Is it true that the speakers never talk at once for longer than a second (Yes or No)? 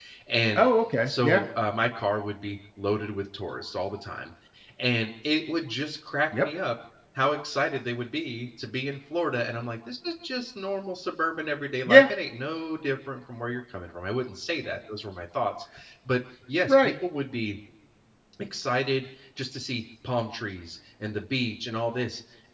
Yes